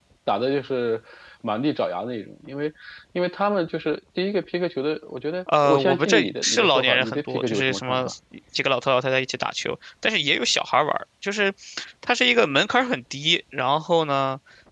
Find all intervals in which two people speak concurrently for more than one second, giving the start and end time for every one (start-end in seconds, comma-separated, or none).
5.6-8.0